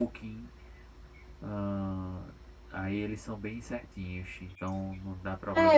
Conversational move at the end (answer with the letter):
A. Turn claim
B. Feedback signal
A